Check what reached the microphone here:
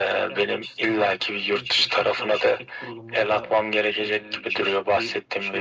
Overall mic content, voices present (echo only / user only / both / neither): echo only